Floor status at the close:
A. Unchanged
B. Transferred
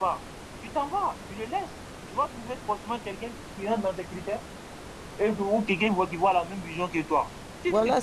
B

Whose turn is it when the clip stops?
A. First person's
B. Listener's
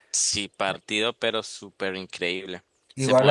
A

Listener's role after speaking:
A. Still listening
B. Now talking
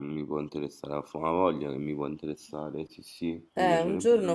B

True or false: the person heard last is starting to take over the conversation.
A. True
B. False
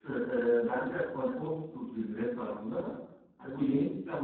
B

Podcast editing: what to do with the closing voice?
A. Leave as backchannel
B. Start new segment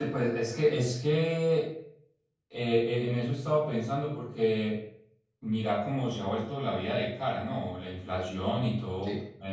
A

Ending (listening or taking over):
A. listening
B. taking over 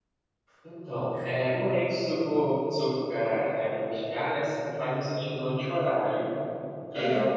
A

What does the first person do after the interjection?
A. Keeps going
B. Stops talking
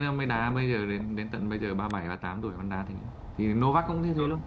A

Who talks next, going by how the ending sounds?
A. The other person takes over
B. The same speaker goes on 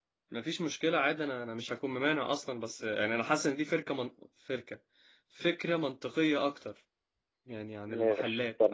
A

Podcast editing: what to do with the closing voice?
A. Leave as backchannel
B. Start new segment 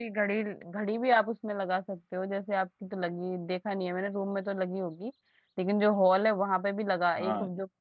A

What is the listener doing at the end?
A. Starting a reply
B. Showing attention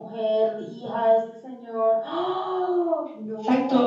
A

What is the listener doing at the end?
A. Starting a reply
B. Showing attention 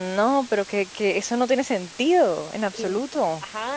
A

